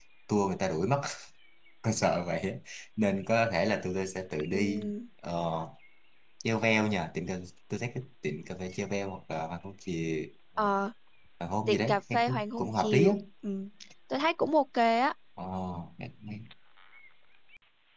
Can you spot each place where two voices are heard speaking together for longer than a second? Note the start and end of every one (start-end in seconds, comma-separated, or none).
11.7-13.1